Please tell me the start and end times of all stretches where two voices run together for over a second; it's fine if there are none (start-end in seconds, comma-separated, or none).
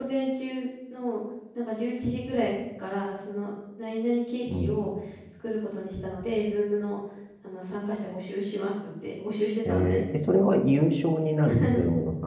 none